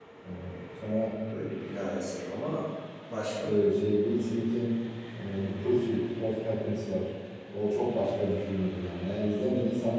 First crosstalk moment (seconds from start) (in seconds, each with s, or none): none